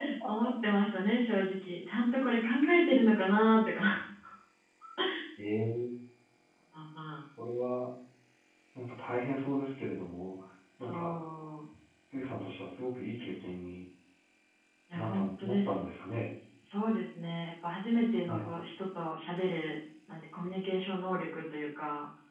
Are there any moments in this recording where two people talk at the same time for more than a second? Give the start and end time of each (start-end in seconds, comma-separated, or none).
14.9-16.3